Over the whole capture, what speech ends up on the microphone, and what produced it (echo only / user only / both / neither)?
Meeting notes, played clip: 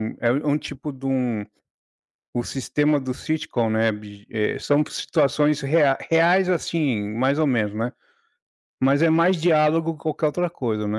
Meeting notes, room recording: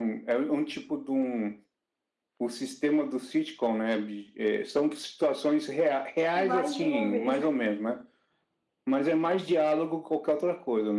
both